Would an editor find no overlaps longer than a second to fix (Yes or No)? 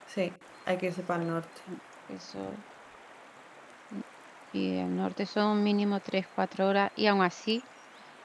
Yes